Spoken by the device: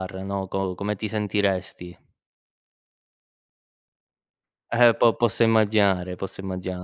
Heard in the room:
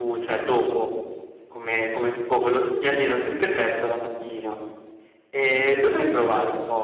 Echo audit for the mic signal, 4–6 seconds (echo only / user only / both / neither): user only